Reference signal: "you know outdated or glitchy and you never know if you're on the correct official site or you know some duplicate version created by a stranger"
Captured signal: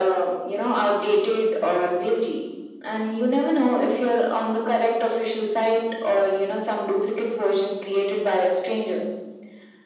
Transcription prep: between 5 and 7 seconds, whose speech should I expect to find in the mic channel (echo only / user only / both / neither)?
echo only